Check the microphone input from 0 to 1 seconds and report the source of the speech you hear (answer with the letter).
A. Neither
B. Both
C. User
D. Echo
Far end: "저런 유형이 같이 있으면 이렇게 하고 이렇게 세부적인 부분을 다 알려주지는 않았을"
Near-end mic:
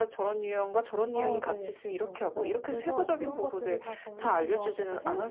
D